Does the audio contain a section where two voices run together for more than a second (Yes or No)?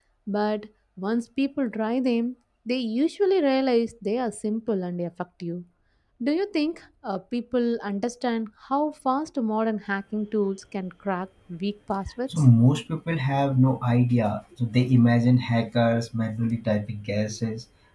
No